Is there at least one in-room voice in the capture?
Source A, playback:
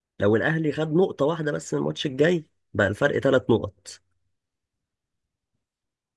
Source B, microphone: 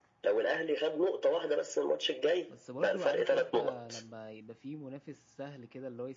Yes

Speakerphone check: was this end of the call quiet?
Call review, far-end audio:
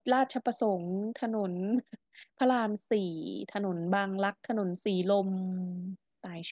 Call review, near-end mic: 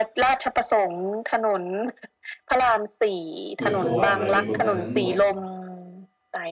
No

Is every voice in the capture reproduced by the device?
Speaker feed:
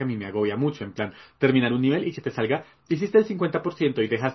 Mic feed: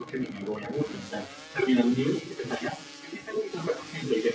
Yes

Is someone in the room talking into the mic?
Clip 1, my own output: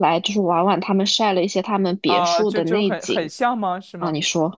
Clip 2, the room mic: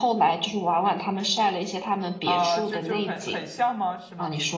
No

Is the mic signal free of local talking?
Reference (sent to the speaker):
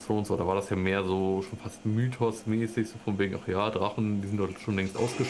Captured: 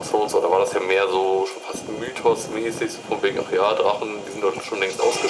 Yes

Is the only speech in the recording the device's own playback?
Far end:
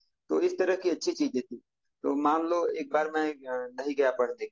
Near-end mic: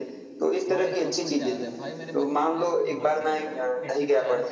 No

